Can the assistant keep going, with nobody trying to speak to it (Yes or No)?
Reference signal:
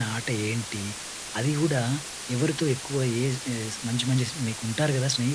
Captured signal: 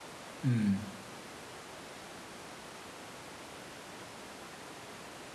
No